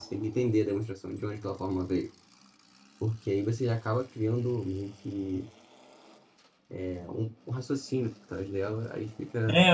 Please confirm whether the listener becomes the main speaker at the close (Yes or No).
Yes